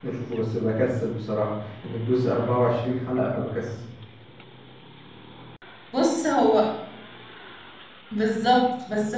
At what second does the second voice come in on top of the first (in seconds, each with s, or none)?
none